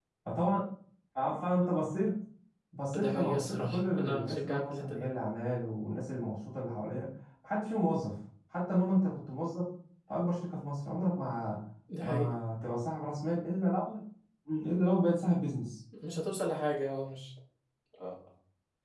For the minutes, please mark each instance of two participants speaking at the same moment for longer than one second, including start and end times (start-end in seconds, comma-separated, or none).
3.0-5.1